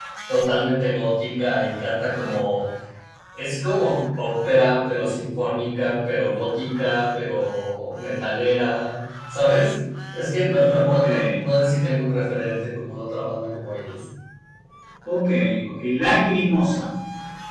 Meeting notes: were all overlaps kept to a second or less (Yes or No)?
Yes